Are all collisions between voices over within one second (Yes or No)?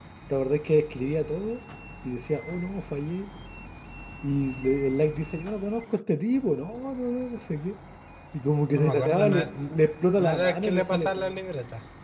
No